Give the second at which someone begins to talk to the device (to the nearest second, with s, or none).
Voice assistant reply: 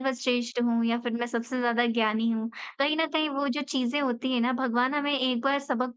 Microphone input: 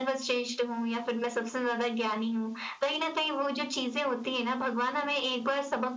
none